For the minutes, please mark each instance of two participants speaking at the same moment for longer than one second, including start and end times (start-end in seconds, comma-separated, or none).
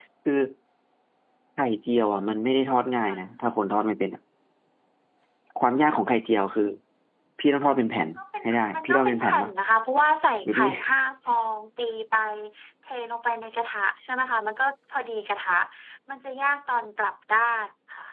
8.2-9.5